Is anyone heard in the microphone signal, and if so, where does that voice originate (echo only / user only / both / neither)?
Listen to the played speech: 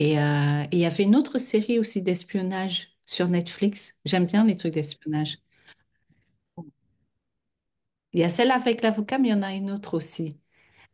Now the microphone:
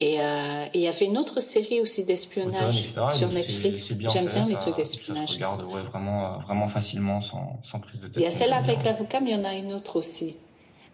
both